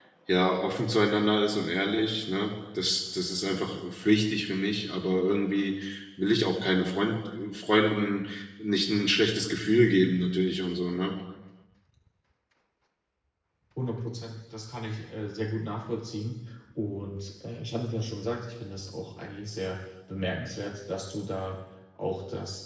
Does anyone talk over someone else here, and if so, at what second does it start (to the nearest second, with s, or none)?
none